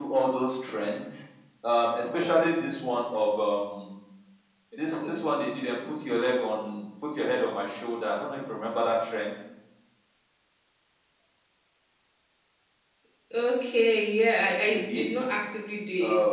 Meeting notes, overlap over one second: none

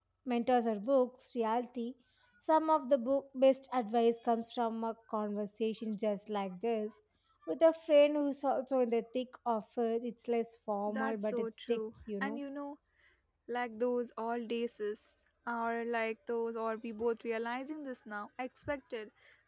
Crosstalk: present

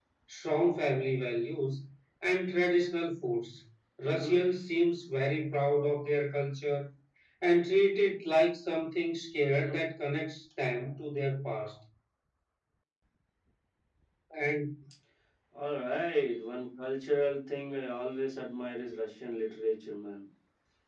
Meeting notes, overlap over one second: none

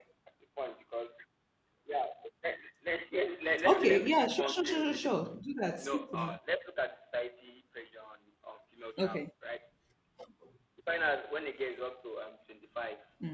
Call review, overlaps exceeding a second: present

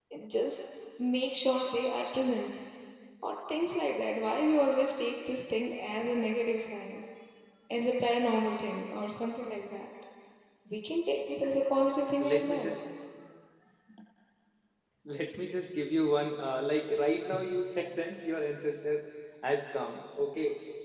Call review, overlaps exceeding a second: none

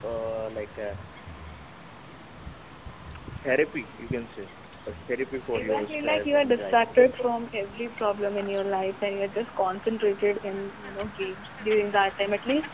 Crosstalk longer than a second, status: present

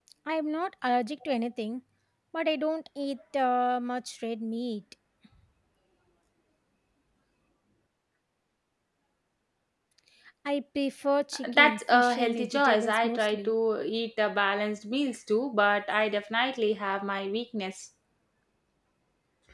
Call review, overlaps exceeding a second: present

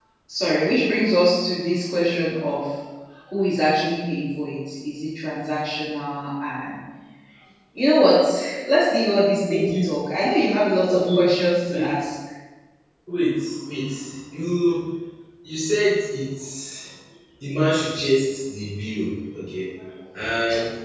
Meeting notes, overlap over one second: none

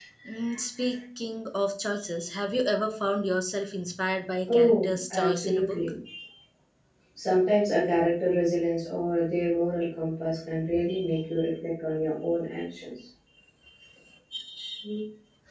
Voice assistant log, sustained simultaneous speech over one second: present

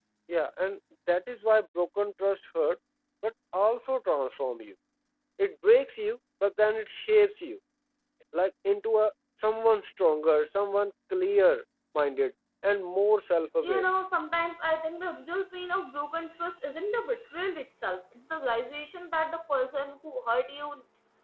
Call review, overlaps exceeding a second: none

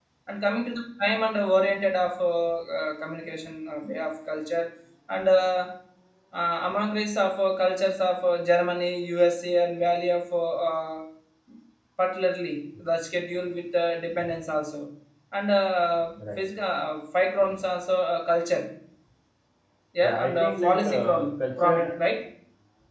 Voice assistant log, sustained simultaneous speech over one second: present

